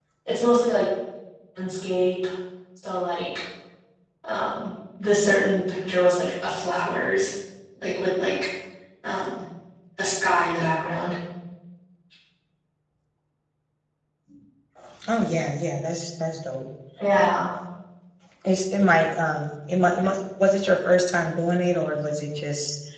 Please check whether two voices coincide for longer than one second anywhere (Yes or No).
No